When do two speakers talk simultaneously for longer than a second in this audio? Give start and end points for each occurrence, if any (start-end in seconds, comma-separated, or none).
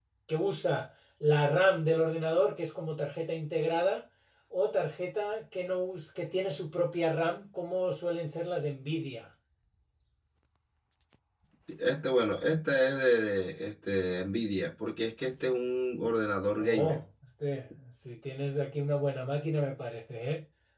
none